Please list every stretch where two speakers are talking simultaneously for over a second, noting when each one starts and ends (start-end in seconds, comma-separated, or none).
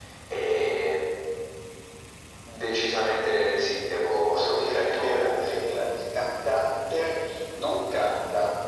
4.1-5.6